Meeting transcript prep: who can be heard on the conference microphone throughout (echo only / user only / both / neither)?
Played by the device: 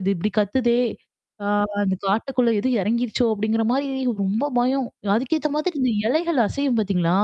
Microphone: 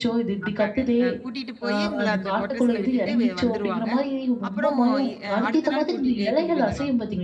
both